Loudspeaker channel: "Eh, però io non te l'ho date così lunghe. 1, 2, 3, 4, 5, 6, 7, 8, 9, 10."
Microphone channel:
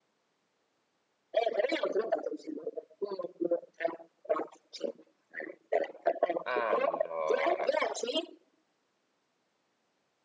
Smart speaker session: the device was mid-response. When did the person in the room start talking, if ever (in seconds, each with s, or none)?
6.4 s